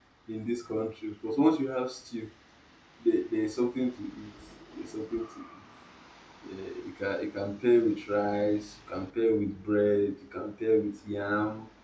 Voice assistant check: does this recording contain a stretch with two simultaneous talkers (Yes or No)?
No